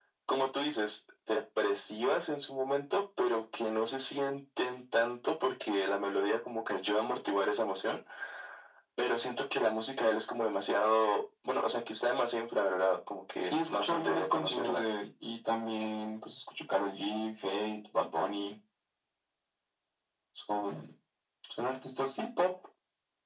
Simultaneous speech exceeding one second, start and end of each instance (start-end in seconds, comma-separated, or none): 13.4-14.9